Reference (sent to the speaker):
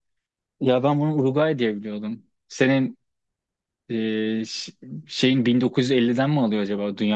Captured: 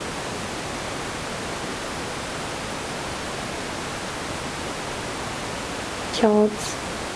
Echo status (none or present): none